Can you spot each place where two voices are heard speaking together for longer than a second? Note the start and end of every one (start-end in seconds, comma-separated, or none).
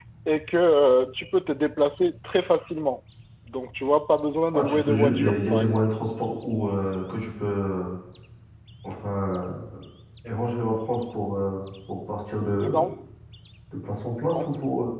4.5-5.8